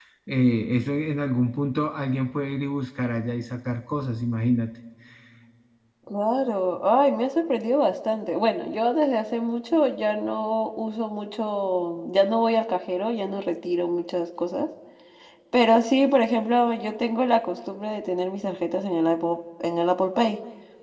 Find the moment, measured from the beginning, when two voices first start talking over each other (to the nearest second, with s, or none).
none